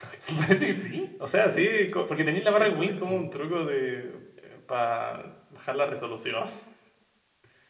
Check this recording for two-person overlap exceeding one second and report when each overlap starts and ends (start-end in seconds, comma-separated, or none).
2.1-3.3